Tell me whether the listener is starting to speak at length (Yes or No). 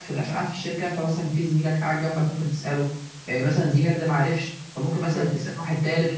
No